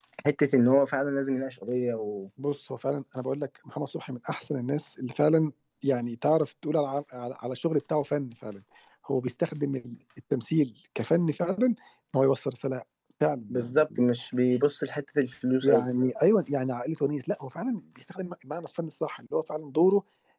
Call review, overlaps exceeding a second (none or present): none